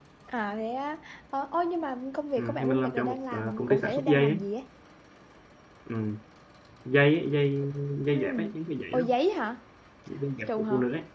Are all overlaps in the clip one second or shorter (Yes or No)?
No